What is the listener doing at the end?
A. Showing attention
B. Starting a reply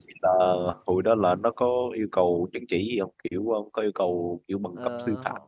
B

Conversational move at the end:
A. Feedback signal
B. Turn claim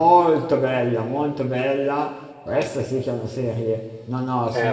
B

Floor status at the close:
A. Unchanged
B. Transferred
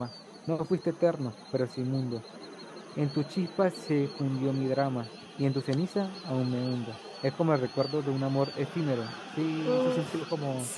B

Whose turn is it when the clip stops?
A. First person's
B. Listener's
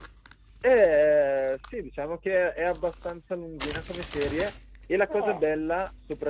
A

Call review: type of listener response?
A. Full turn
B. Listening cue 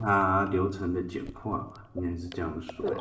A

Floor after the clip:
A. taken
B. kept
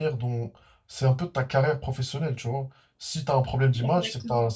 B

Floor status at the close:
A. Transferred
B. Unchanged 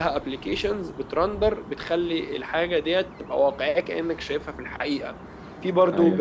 B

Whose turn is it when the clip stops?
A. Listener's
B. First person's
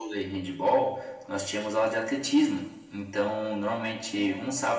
B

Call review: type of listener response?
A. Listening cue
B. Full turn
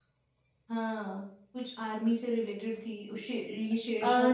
B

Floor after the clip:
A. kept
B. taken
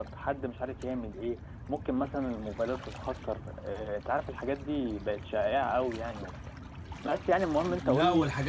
B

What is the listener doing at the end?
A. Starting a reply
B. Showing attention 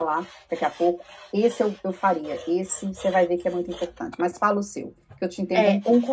A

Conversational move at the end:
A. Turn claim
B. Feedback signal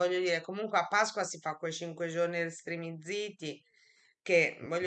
B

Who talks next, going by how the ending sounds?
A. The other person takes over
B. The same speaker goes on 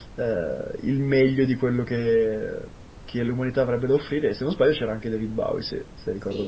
A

